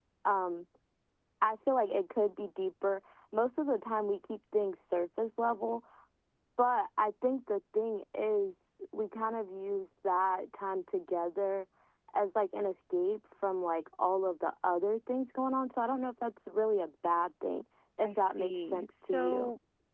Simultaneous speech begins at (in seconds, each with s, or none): 18.0 s